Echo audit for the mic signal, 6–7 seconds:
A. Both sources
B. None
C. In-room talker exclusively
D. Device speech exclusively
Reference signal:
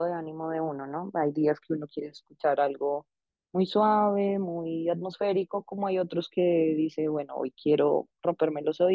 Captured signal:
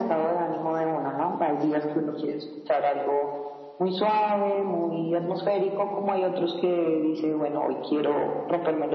D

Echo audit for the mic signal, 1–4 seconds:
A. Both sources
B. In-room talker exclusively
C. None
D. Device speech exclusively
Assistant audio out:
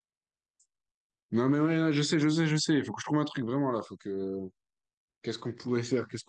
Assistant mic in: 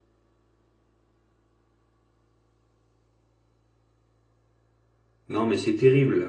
C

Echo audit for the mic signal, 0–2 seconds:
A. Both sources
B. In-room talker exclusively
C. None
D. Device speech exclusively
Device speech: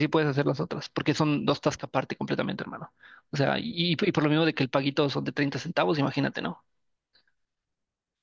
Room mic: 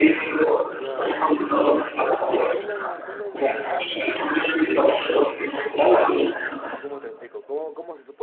A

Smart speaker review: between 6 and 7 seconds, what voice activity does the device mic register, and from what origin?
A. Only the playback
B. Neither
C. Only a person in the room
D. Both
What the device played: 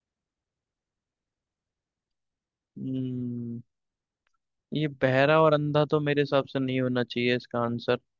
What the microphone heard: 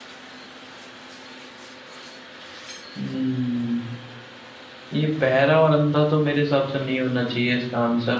A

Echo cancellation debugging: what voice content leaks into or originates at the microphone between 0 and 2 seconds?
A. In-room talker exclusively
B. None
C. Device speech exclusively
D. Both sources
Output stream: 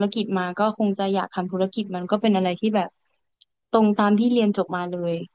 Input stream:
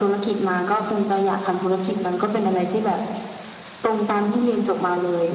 C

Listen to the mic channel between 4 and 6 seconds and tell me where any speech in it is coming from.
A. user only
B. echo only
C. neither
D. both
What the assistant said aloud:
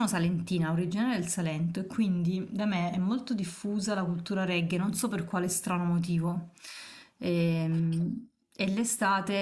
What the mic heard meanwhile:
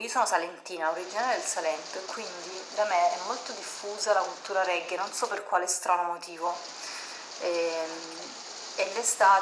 B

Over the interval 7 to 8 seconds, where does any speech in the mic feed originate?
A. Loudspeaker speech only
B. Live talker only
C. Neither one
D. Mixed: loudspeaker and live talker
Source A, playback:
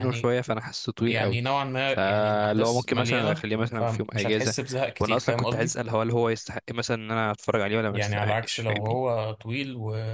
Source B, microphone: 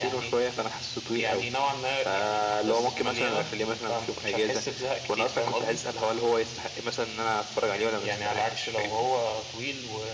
A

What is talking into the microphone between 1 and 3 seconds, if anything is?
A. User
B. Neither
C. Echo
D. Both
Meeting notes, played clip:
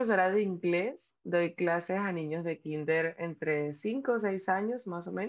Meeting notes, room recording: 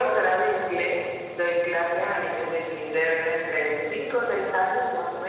C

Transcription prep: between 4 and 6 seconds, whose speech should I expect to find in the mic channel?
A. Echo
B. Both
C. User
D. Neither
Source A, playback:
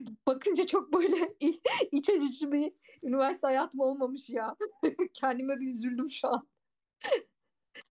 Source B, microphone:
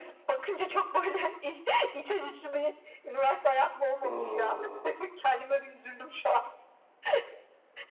B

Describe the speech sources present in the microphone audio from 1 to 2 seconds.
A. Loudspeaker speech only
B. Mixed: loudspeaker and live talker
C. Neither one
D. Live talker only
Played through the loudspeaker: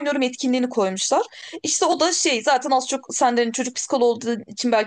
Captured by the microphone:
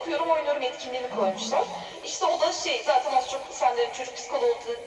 B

